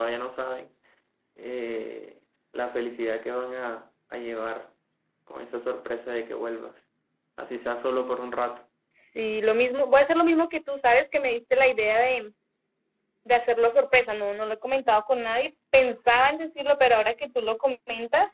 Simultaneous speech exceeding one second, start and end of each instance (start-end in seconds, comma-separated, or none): none